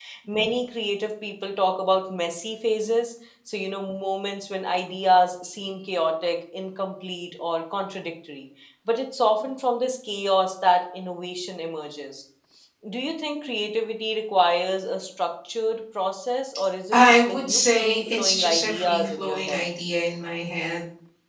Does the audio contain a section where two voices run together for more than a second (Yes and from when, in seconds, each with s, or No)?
Yes, from 16.9 s